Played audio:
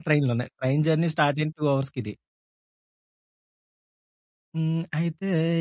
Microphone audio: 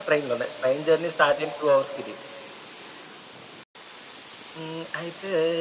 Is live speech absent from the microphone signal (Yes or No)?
Yes